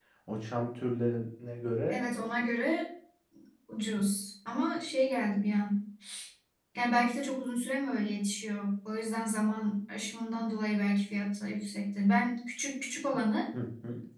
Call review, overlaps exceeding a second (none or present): none